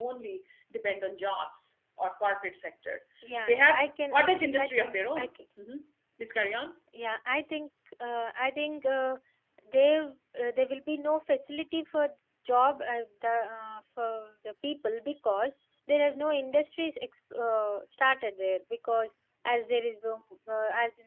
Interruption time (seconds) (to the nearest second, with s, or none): 3 s